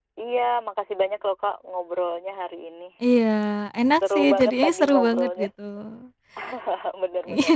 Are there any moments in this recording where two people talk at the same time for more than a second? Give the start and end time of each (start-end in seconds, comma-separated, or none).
4.2-5.5